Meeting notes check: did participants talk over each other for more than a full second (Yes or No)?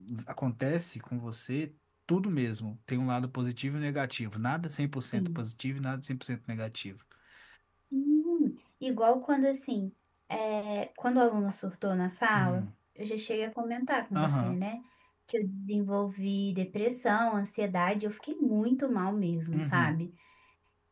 No